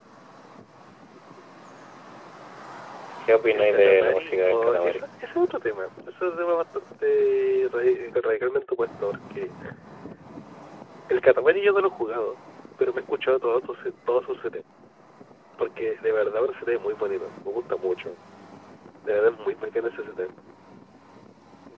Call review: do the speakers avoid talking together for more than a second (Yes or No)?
No